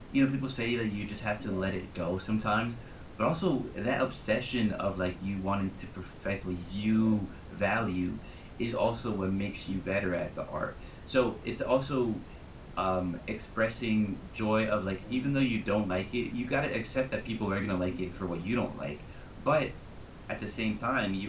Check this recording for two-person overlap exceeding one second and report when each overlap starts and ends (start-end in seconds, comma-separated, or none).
none